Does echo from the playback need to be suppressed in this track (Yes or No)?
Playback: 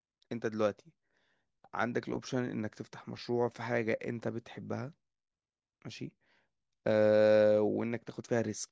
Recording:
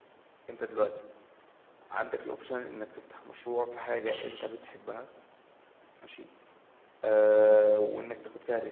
Yes